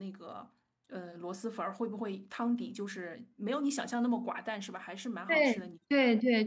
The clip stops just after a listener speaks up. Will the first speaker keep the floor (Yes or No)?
No